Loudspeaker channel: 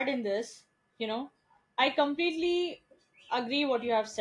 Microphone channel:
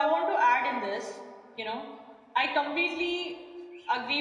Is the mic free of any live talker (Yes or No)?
Yes